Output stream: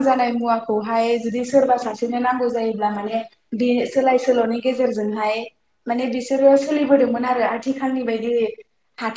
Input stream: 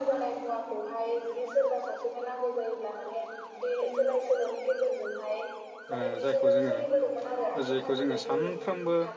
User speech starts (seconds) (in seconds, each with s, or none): 5.9 s